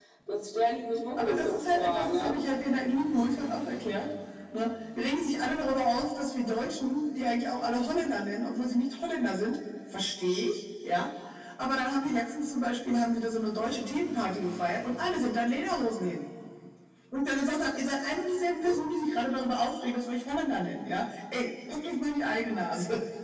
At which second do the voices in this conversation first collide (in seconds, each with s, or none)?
1.2 s